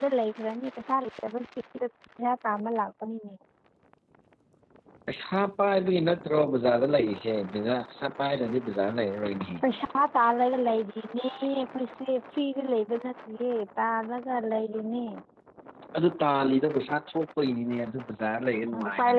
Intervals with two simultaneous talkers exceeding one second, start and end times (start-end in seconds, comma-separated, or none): none